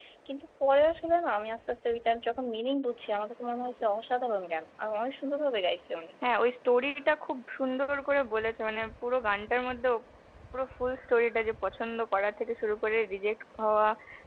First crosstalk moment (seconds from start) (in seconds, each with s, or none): none